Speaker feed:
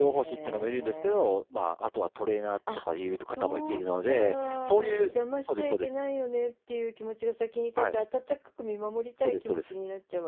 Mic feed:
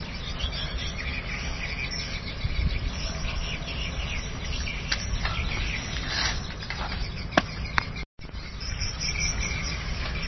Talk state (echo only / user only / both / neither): neither